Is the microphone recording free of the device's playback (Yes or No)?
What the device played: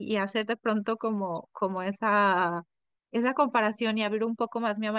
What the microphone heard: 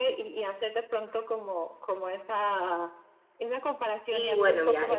No